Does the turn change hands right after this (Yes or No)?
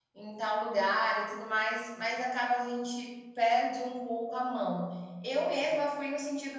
No